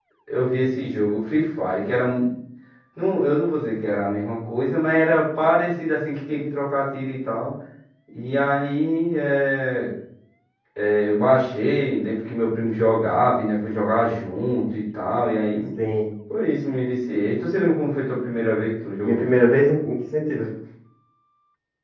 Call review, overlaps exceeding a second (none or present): none